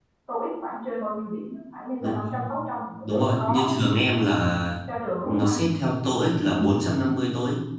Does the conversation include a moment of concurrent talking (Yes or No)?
Yes